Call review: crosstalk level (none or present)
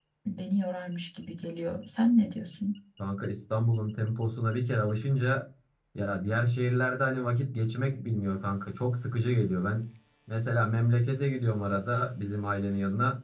none